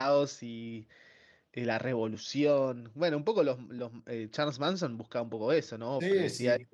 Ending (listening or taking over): taking over